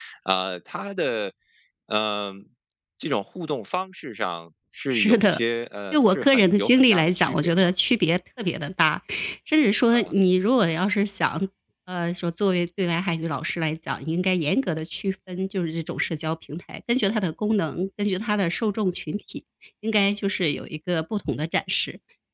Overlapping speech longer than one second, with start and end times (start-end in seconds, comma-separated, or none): 5.9-7.7